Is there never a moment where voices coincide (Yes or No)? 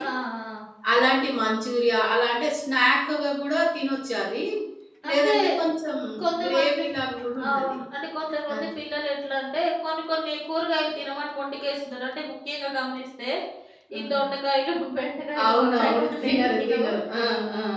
No